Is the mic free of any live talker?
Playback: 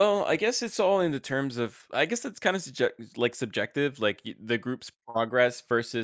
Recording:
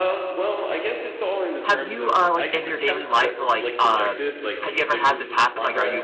No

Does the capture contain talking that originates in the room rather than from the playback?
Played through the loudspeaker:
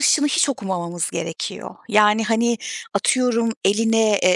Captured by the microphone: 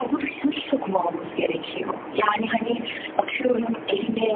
No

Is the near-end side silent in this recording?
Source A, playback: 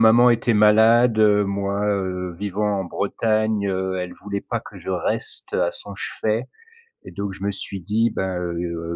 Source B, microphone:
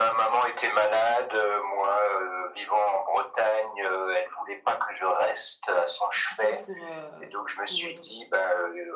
No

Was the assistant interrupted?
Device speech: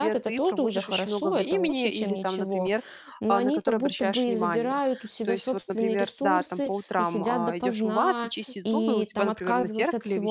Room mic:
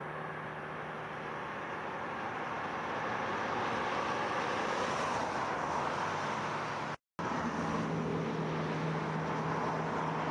No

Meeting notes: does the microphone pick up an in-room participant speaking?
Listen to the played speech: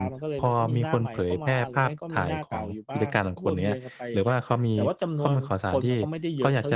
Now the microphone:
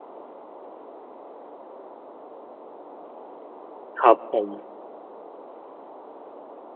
Yes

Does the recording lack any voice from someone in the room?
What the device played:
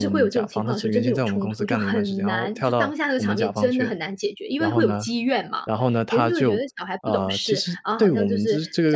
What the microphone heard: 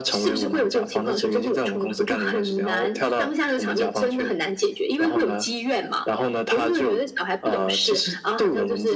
Yes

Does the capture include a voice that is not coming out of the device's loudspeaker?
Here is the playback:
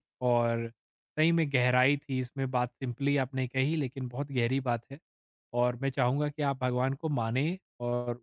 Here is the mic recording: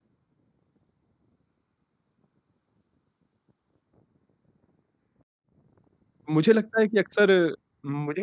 Yes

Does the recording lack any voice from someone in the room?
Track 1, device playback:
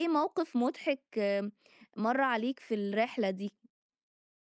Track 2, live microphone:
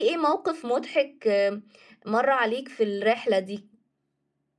Yes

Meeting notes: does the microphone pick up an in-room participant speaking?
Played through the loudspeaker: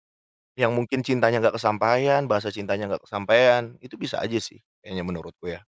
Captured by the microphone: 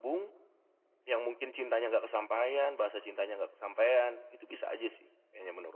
No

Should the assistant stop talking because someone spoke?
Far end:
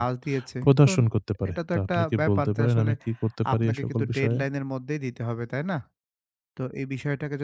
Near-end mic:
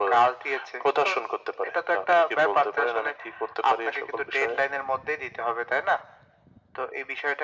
No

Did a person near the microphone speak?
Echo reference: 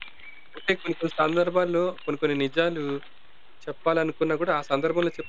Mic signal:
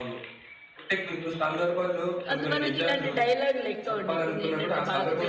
Yes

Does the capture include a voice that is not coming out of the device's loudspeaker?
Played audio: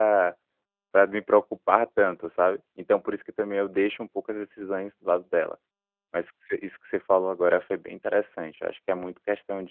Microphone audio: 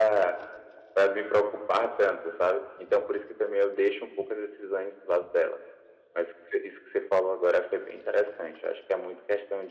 No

